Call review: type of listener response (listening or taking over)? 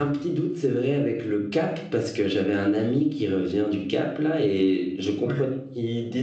listening